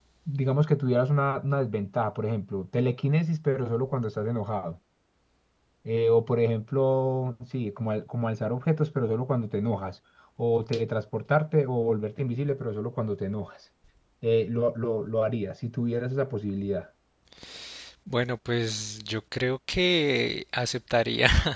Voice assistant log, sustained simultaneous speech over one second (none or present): none